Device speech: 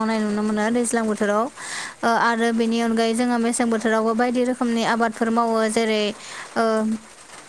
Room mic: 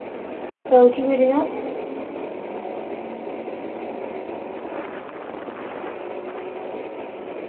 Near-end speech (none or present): present